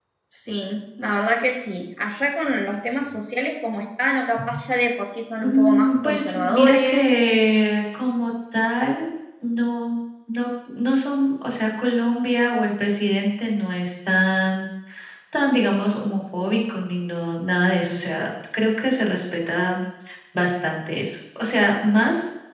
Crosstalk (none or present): present